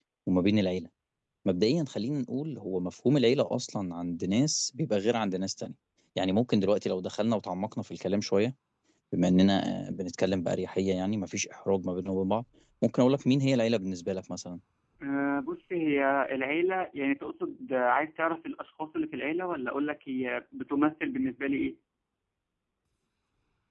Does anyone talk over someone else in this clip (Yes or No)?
No